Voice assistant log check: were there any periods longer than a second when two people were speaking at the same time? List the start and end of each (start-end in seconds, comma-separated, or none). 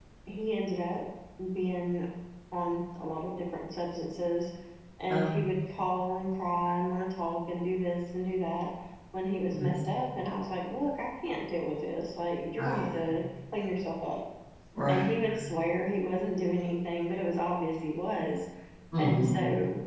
none